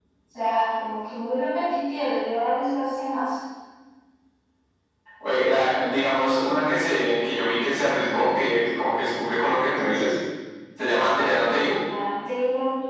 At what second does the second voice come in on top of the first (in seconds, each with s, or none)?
none